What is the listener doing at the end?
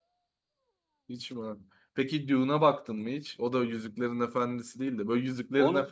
listening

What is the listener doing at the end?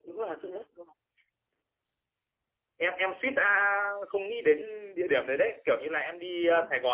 listening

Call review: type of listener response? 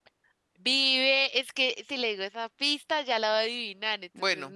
taking over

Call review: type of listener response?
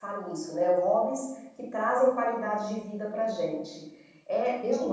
taking over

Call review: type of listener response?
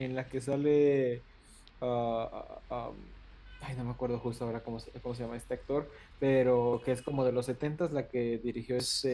taking over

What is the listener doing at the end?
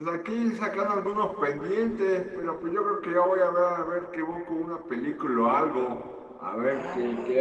taking over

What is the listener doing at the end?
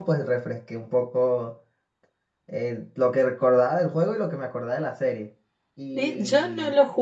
taking over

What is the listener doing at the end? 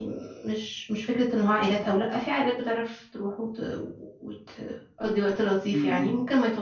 listening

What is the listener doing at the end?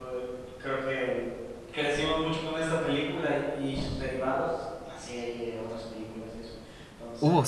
listening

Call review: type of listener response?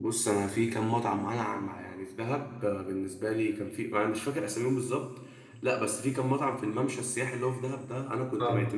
listening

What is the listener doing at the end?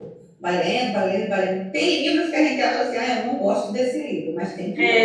taking over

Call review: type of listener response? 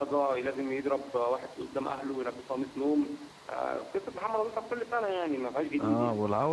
taking over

